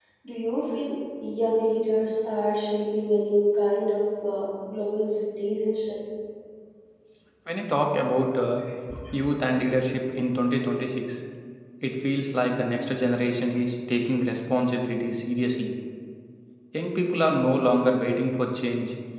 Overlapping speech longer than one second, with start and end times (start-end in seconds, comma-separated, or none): none